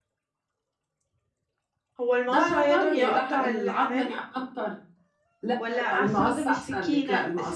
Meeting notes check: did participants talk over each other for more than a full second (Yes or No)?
Yes